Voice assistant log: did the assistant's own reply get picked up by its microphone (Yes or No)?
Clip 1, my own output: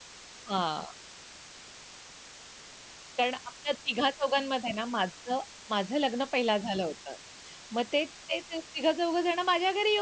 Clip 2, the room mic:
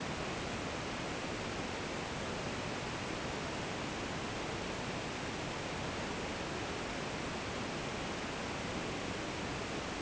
No